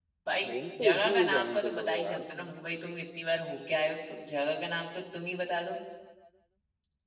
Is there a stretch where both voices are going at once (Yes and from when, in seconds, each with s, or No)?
Yes, from 0.8 s